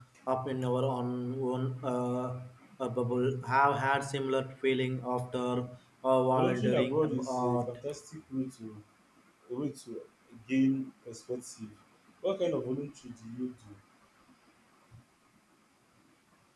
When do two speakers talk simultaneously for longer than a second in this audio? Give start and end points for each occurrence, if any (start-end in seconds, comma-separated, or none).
6.3-7.8